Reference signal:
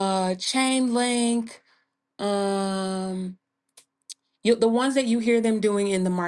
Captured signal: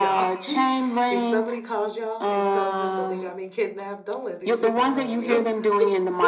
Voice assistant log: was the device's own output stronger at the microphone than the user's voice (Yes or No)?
Yes